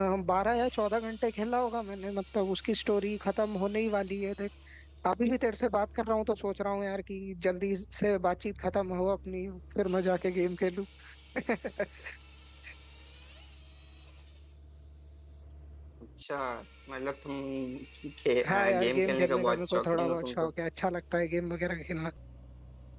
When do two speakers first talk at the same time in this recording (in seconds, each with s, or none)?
18.4 s